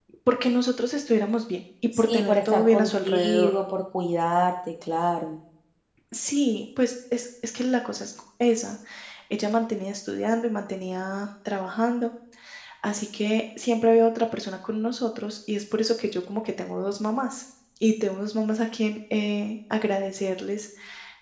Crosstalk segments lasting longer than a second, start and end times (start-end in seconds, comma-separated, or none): 2.0-3.5